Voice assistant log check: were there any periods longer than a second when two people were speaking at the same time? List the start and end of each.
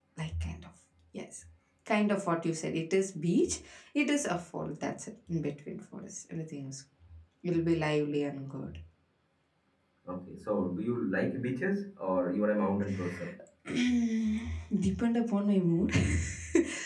none

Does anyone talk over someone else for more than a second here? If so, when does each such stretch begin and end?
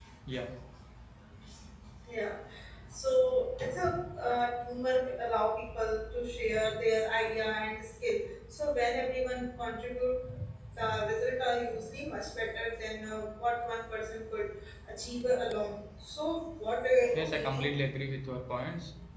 none

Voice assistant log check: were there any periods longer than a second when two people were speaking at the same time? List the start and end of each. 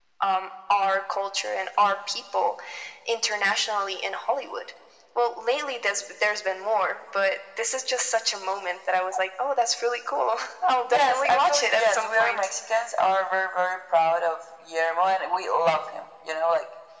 10.9-12.5

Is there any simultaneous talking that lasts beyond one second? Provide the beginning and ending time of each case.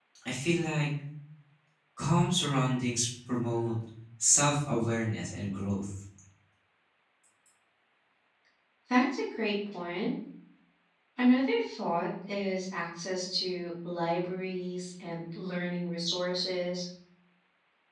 none

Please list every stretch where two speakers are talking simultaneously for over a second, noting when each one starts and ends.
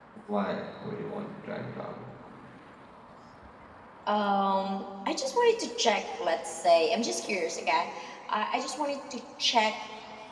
none

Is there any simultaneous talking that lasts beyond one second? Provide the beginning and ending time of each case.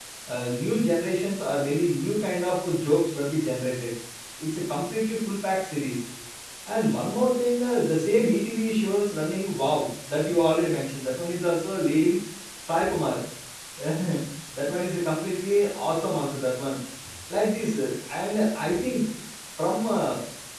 none

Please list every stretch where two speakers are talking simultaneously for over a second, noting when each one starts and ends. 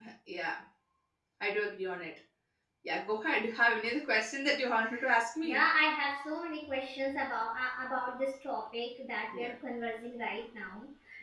none

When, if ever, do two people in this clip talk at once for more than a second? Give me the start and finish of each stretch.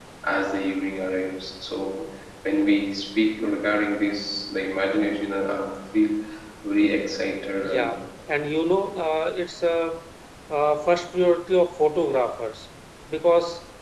none

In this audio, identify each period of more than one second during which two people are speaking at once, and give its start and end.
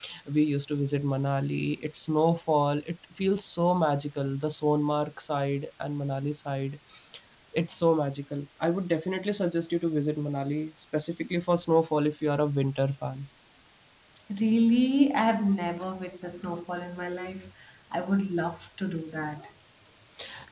none

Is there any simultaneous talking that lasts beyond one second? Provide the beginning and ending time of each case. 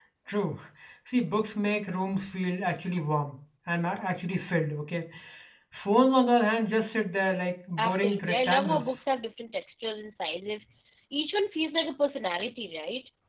7.8-9.0

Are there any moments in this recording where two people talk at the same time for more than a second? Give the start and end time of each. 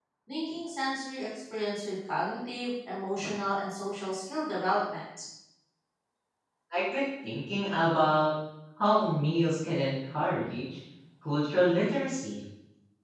none

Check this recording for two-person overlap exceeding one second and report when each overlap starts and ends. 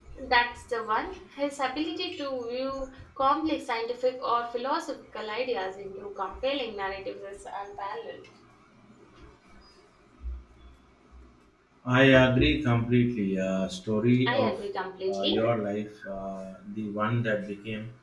none

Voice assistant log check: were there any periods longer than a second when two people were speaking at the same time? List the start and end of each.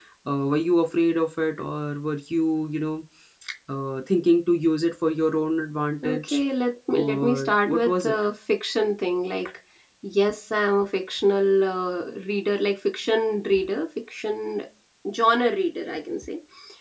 6.9-8.1

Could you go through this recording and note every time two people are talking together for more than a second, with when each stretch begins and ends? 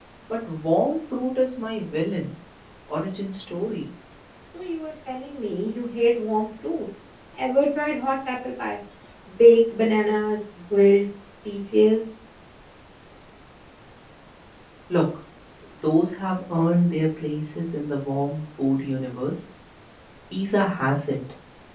none

